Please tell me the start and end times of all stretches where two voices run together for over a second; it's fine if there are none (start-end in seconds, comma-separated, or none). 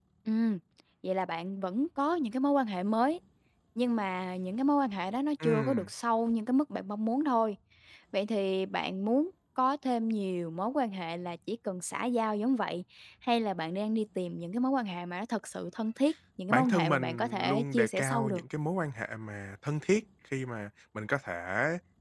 16.5-18.4